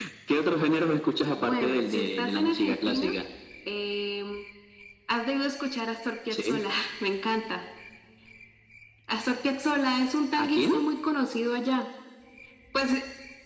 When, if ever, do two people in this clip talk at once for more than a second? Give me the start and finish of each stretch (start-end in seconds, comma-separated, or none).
1.3-3.1